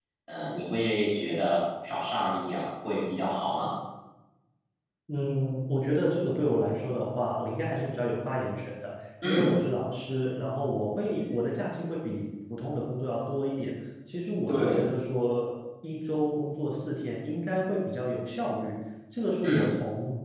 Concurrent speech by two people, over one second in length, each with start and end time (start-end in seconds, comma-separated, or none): none